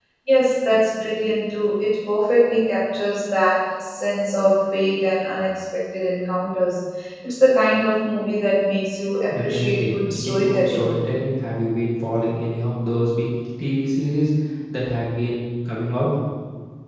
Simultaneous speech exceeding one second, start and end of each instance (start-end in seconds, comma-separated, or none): 9.3-10.8